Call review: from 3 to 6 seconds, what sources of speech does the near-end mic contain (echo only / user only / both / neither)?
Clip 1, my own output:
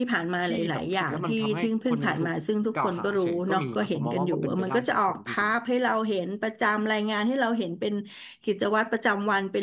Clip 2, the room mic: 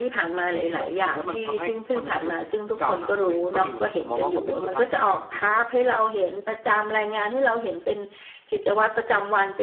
echo only